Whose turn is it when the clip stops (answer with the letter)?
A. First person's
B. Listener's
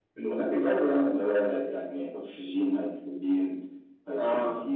B